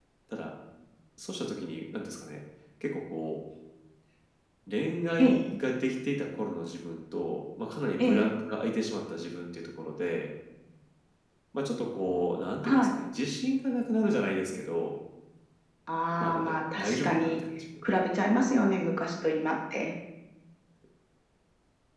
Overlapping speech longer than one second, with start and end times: 16.2-17.4

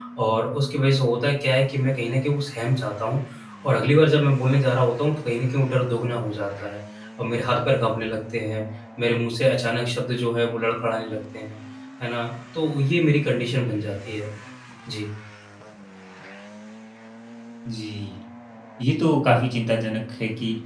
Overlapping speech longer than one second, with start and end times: none

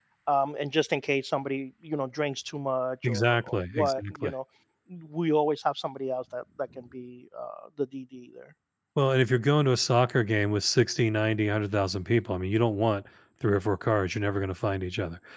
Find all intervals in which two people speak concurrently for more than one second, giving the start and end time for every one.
3.0-4.3

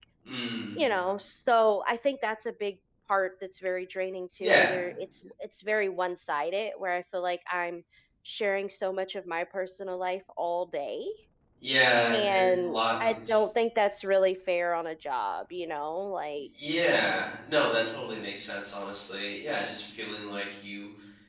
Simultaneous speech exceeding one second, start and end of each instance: 12.1-13.4

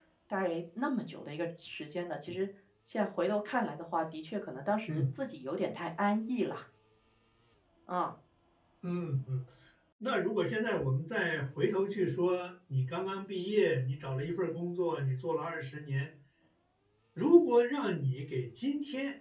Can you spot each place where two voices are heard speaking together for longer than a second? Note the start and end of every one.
none

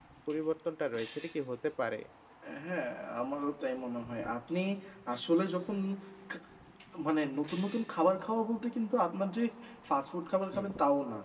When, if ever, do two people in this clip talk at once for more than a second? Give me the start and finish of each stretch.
none

